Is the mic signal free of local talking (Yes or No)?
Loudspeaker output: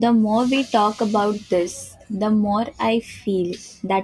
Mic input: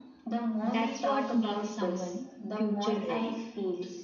No